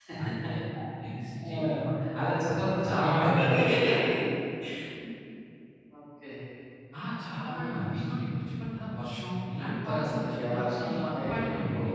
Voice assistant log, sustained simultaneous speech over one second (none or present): present